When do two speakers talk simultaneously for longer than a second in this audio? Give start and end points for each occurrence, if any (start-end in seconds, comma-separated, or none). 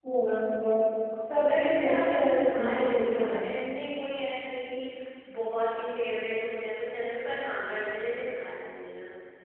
1.4-3.4